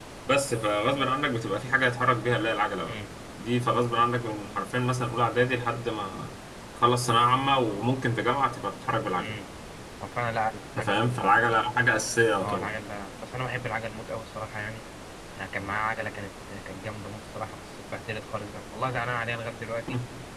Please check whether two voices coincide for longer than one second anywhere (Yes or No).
No